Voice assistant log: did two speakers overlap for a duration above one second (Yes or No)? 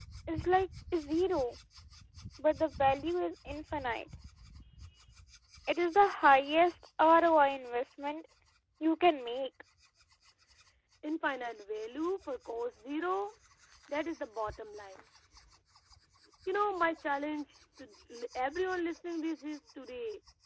No